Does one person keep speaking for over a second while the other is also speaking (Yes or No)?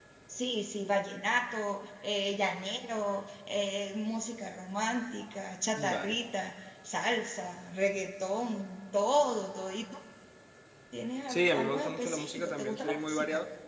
Yes